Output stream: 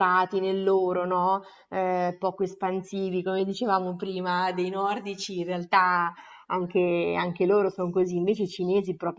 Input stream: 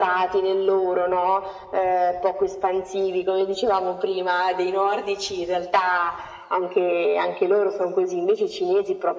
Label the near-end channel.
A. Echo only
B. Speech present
A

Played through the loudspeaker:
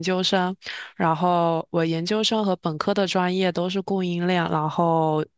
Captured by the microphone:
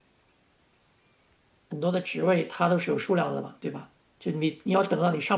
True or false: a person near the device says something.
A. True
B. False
A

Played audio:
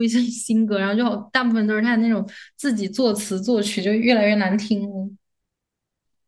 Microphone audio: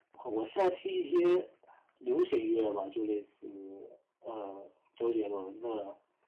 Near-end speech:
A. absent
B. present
B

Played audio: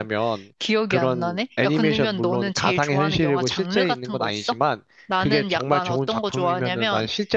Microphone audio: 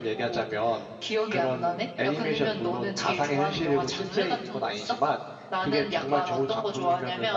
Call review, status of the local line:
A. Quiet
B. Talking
A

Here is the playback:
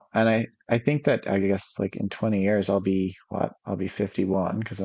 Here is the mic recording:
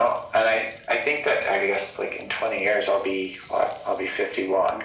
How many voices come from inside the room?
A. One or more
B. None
B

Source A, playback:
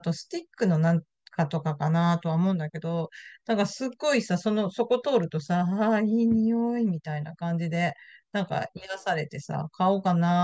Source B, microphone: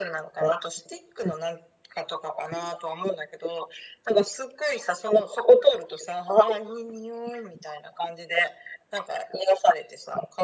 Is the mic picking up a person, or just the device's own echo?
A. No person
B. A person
A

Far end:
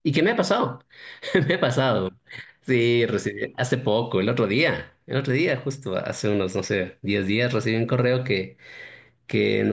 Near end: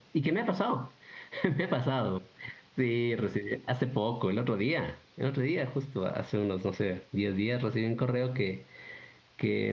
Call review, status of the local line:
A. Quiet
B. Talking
A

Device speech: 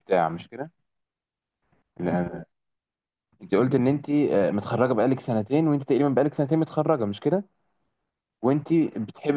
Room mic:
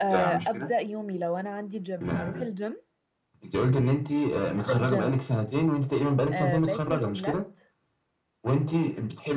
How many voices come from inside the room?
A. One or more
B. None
A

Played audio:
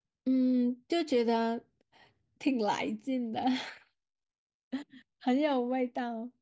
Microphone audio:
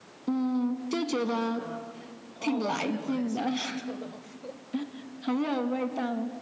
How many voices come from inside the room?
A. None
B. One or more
B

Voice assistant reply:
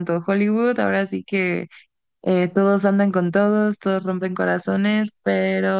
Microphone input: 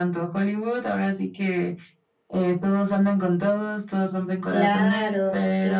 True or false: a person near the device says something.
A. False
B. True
B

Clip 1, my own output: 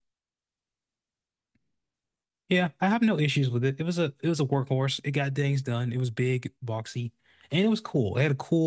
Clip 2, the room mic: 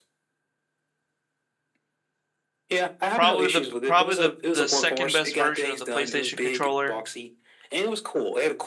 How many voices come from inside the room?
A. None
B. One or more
B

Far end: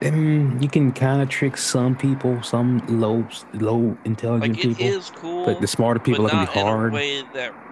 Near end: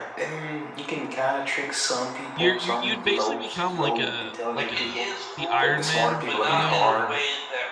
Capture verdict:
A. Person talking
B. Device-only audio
A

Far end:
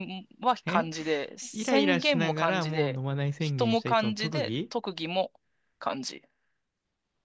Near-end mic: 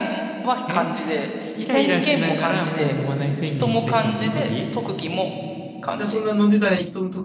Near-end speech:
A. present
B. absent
A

